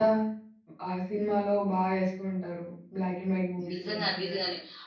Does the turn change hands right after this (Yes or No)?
Yes